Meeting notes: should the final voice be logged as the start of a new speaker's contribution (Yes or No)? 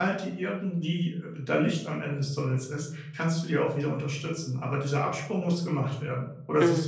Yes